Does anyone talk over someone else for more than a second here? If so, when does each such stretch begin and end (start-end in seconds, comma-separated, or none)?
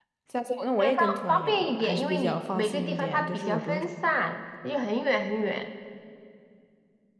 0.8-3.9